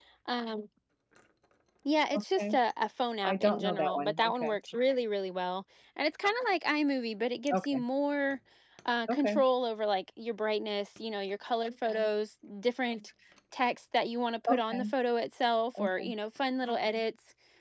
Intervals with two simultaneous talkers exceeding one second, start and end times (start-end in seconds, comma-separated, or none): 3.2-4.6